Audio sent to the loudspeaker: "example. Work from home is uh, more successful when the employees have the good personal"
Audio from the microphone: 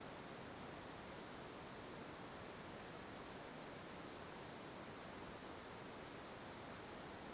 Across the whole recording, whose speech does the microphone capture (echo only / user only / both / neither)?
neither